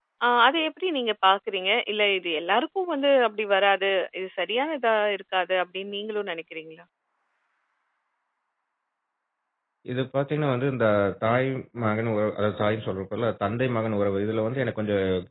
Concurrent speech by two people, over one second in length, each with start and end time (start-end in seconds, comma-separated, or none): none